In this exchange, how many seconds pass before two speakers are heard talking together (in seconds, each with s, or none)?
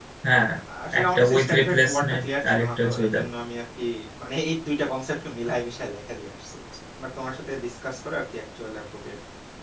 1.0 s